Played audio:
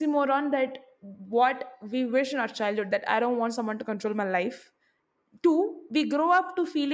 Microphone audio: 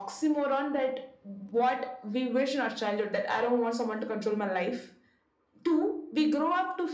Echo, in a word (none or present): present